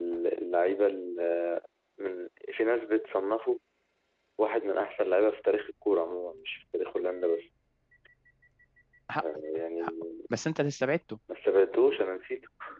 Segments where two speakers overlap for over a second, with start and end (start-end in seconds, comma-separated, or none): none